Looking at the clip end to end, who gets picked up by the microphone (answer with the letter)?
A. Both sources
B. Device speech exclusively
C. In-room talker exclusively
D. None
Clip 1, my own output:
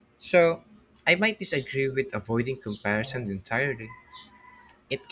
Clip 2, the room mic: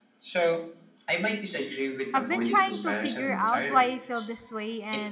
A